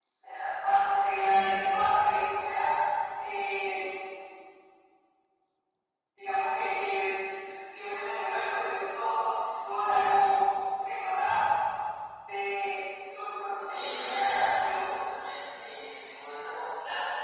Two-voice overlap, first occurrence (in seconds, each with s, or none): 13.7 s